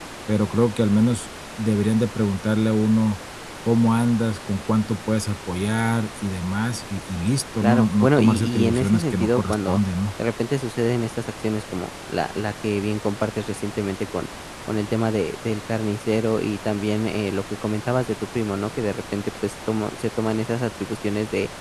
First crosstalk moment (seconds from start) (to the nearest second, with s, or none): 8 s